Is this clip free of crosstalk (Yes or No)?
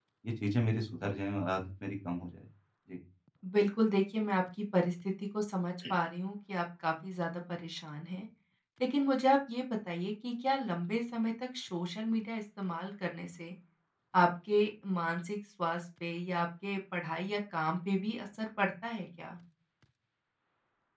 Yes